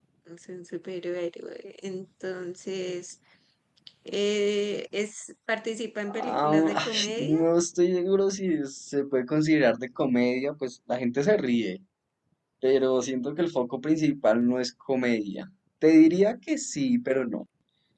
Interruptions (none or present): present